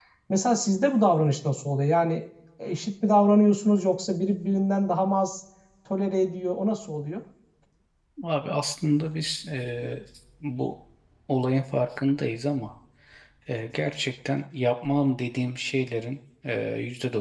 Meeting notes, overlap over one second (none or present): none